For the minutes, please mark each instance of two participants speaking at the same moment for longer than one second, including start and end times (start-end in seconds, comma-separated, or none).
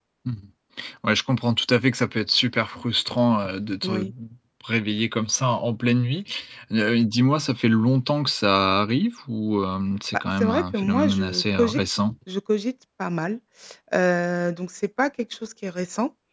10.4-11.8